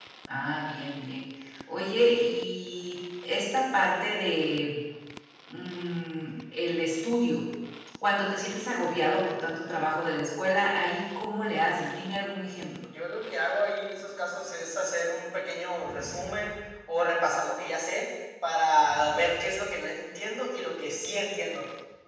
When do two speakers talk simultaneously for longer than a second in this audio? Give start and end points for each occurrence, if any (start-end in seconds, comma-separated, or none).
none